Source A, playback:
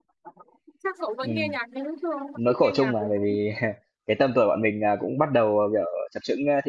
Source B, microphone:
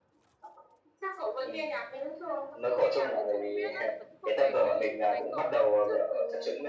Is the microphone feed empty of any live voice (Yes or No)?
No